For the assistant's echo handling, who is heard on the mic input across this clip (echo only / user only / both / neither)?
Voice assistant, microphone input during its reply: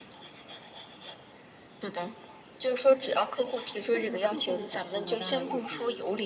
both